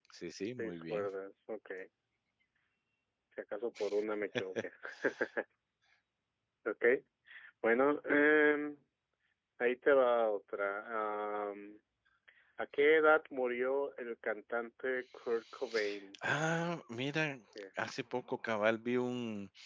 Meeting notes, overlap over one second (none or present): none